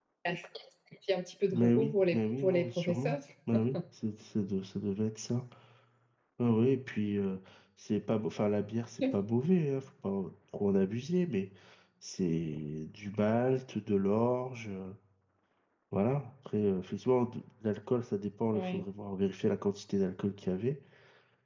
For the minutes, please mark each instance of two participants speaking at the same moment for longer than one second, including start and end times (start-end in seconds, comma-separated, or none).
1.5-3.2